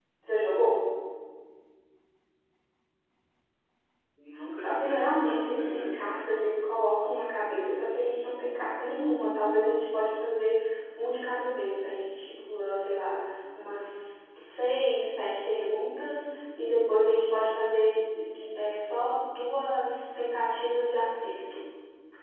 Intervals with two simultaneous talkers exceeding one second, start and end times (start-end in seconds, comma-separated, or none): 4.5-6.3